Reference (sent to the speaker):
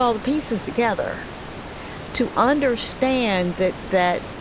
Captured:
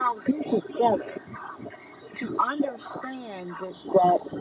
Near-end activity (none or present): none